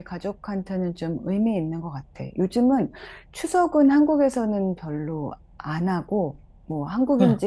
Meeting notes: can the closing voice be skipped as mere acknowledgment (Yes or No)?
Yes